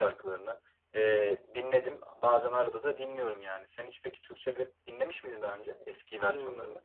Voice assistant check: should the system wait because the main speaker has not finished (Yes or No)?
No